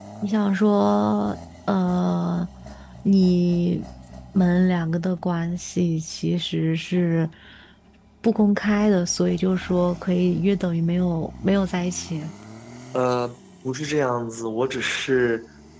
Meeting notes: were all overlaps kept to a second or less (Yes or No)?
Yes